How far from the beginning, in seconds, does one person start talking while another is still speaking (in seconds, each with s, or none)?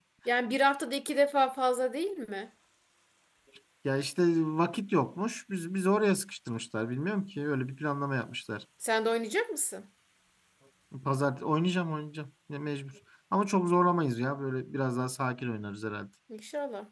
none